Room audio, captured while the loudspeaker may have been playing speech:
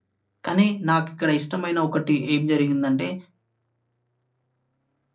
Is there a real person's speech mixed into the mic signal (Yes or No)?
Yes